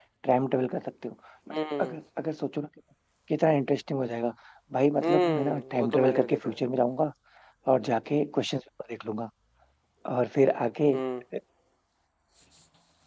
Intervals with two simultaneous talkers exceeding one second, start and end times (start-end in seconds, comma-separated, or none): 5.0-6.6